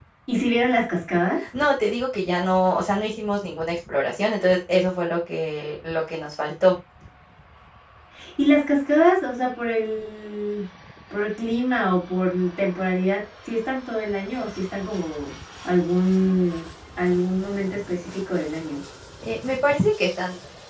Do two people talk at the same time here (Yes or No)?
No